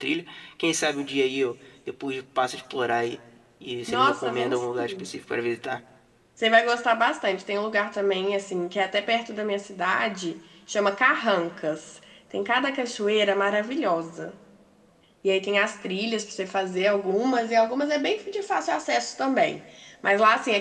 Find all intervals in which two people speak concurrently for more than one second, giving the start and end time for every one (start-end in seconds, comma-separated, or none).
3.9-5.1